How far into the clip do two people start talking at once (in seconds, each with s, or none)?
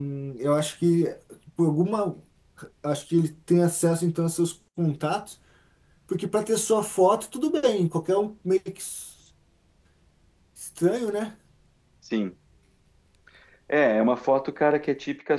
none